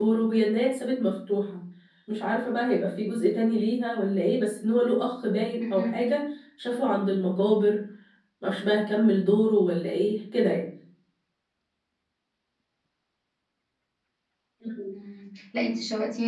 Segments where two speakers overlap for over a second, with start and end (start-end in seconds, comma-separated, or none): none